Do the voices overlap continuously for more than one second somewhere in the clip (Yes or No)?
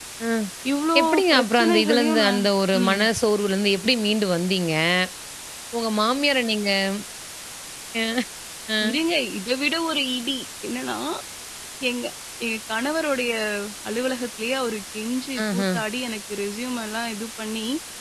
Yes